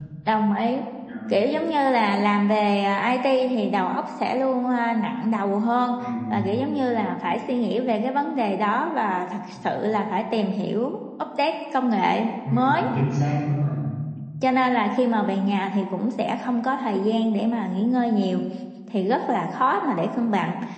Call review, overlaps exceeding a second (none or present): none